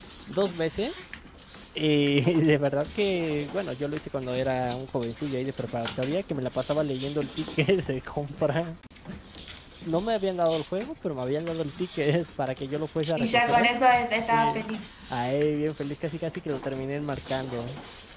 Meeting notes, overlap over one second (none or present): none